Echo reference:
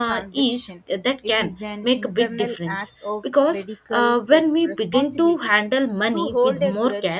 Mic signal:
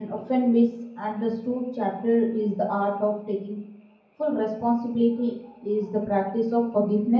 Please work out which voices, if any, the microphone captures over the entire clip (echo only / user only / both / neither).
user only